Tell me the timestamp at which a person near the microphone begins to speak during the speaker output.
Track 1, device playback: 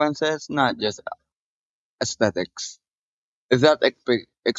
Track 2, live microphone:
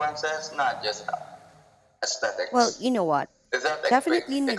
2.5 s

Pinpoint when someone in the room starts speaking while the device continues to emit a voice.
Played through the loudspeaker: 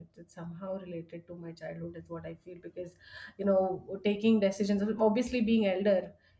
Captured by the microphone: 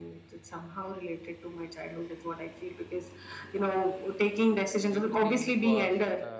4.9 s

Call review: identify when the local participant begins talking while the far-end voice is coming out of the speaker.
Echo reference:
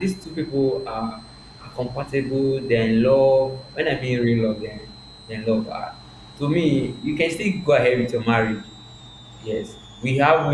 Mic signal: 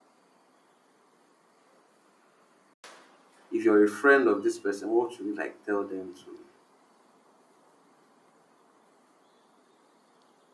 3.5 s

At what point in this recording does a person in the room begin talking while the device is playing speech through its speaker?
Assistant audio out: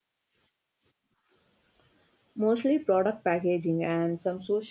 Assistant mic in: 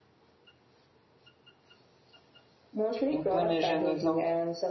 3.1 s

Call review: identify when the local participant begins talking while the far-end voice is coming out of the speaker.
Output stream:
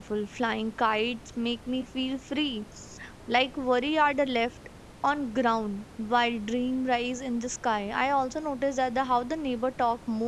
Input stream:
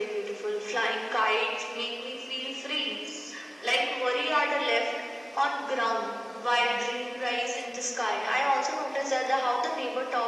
none

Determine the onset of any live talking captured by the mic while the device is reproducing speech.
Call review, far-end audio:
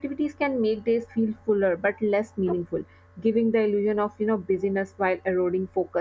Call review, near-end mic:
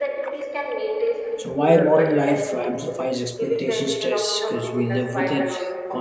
1.4 s

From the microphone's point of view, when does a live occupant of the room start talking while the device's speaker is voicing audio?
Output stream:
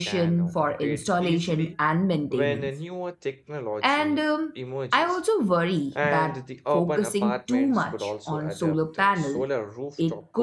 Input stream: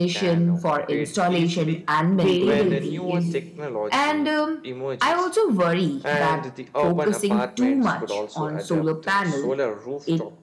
2.1 s

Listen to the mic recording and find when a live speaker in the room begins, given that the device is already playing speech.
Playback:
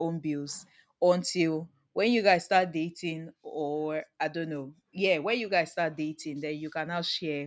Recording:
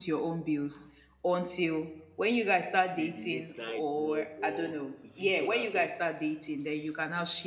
3.0 s

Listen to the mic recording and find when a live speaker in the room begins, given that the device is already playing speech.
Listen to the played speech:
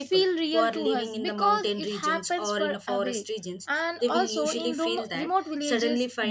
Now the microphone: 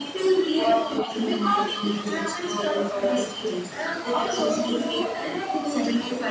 none

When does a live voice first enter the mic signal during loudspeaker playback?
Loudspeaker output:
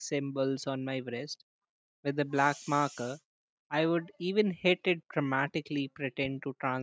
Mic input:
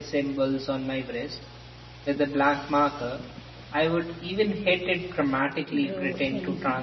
5.7 s

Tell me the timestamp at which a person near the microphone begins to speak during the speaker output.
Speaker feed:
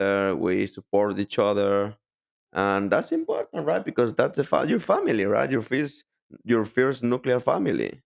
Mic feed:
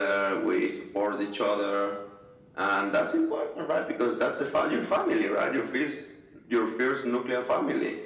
none

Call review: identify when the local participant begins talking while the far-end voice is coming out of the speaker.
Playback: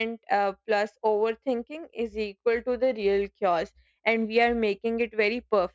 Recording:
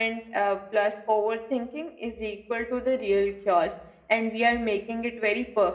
none

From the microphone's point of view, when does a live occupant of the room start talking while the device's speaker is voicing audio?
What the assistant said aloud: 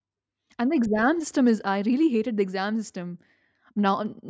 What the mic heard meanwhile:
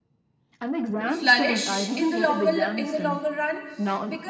1.1 s

